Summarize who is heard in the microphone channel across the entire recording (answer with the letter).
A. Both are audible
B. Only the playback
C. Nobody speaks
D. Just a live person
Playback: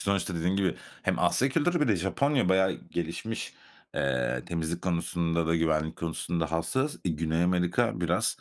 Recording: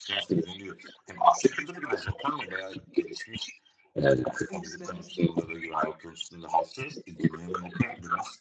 A